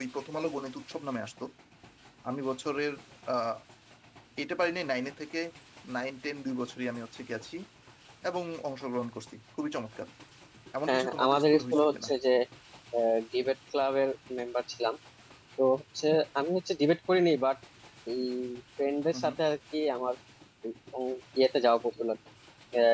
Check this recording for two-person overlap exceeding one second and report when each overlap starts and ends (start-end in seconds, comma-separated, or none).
10.9-12.1